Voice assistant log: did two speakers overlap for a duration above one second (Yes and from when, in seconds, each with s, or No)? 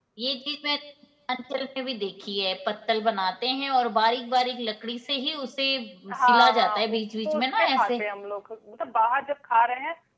Yes, from 6.2 s